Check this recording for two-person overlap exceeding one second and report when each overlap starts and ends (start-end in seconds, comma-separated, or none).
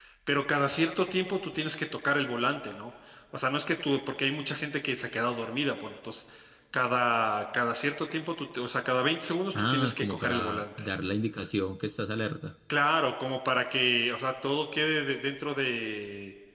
9.5-10.8